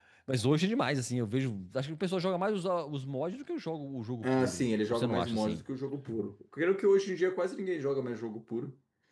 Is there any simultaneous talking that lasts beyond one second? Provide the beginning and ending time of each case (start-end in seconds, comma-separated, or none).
4.2-5.6